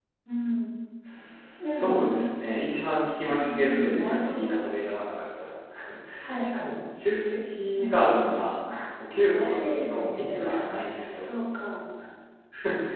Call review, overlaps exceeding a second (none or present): present